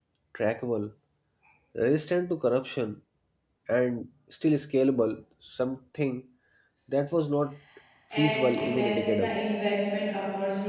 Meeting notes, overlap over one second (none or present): present